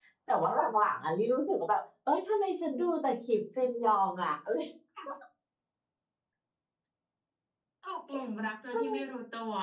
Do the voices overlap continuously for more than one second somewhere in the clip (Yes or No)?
No